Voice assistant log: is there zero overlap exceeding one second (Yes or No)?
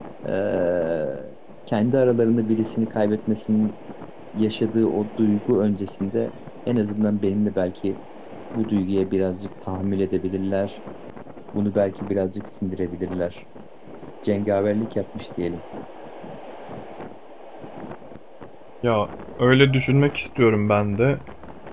Yes